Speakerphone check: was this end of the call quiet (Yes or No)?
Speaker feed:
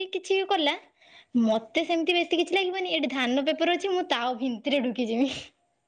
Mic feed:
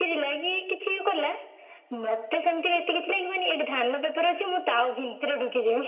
Yes